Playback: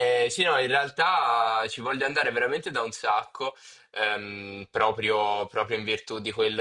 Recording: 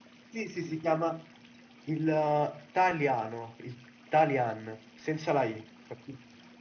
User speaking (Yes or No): Yes